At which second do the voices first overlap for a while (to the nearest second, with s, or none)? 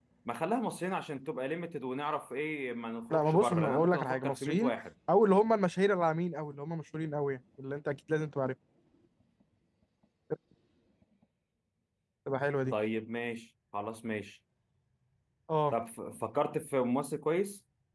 3 s